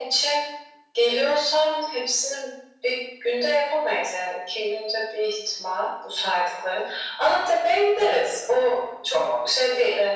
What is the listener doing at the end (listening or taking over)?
listening